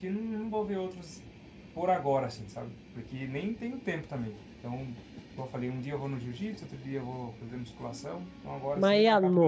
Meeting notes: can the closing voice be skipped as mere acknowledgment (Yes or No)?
No